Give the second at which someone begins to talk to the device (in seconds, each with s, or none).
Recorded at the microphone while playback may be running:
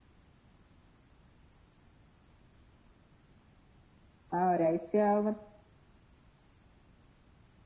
4.4 s